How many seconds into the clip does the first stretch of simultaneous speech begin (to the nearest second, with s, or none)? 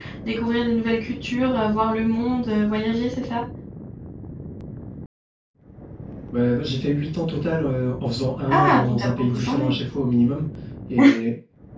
8 s